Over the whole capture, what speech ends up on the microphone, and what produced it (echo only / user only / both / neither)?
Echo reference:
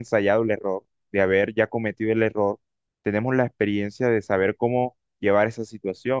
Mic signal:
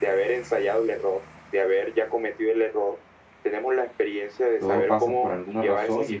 both